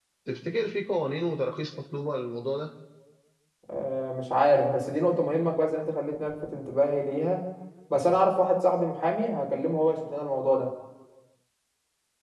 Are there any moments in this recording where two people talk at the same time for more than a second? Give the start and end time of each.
none

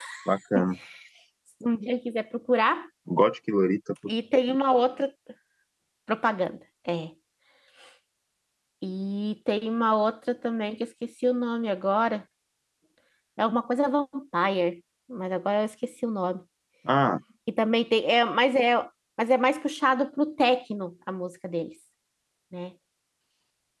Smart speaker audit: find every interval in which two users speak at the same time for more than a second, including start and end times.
none

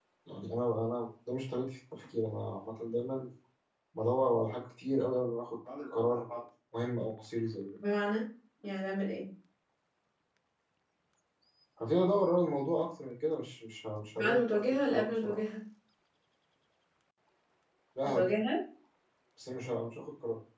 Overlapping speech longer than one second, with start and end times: 14.2-15.4

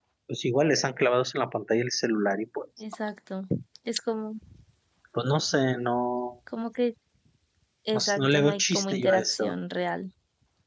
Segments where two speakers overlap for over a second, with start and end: 8.0-9.5

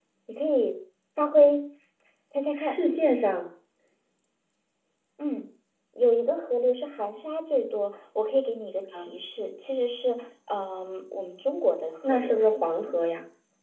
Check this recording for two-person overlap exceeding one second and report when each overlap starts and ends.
none

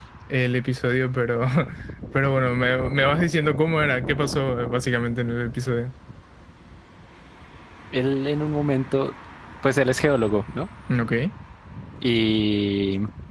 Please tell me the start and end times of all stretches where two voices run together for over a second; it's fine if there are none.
none

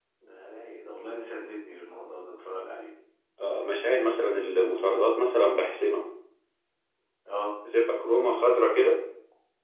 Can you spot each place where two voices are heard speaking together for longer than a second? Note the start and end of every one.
none

